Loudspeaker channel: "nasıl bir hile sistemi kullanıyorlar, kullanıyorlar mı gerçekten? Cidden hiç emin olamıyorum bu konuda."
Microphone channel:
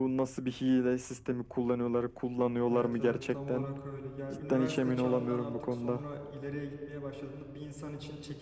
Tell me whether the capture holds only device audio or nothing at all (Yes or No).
No